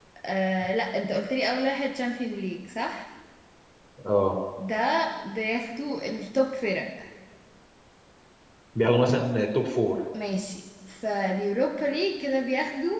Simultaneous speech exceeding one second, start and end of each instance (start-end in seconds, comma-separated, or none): none